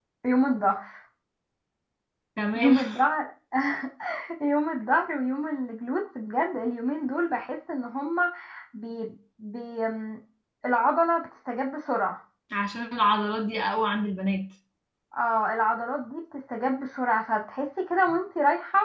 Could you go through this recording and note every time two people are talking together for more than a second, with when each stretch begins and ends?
none

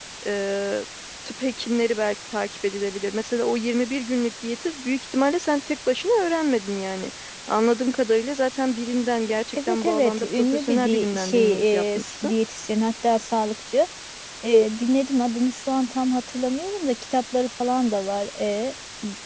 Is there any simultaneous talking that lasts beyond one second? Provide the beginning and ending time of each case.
9.6-12.3

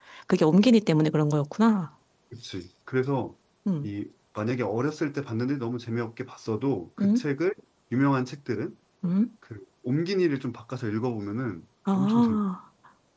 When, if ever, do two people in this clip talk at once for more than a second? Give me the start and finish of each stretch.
none

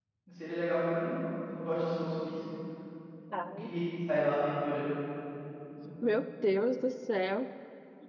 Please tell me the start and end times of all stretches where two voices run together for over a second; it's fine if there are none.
none

